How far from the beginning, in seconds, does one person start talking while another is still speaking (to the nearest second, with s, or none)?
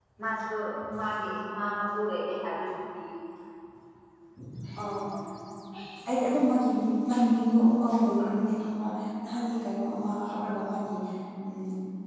none